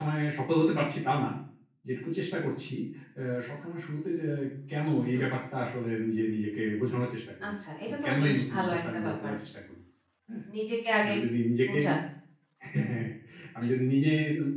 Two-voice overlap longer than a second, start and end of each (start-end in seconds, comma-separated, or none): 7.9-9.3